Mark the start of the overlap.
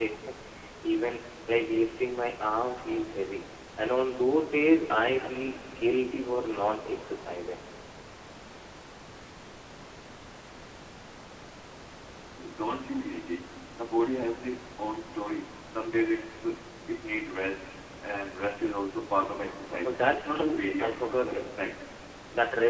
20 s

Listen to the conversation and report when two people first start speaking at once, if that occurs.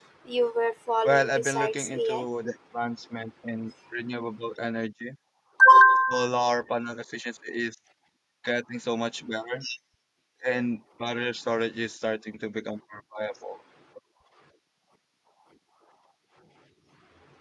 1 s

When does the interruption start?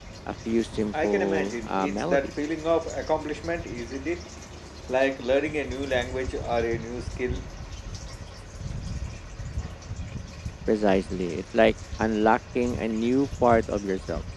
1 s

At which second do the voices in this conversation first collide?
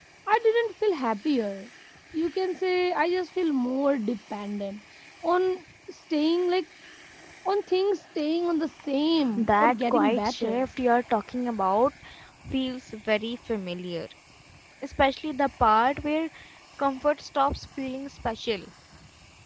9 s

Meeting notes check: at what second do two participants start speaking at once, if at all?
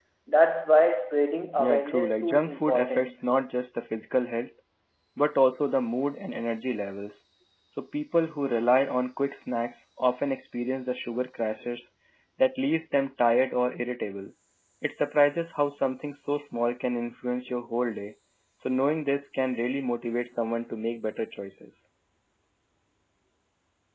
2 s

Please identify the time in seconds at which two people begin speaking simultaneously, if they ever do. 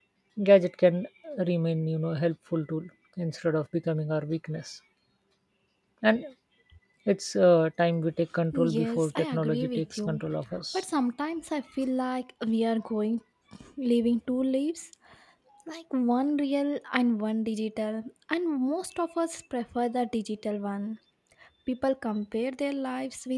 9 s

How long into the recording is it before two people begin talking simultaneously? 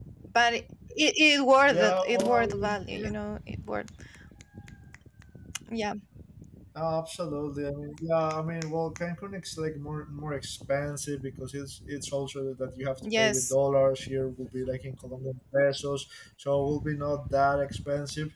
2 s

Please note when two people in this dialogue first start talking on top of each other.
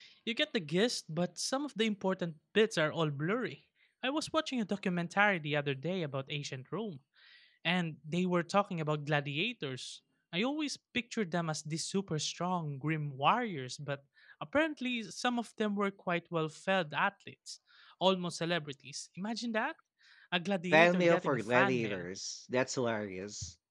21 s

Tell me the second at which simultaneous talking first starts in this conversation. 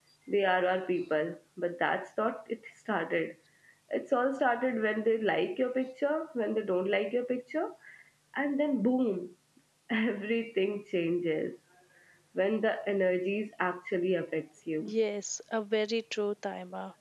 none

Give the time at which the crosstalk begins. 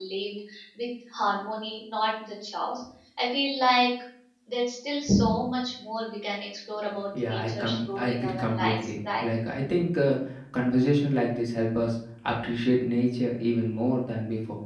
7 s

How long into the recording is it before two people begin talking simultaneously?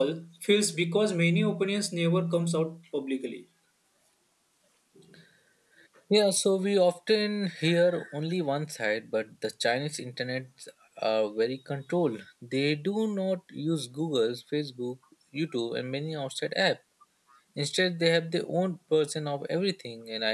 none

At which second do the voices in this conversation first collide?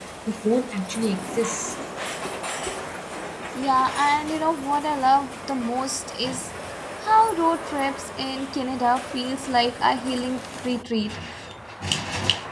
none

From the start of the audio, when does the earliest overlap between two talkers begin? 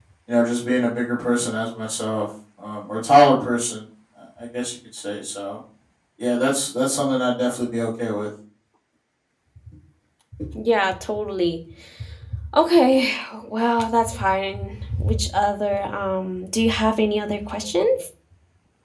none

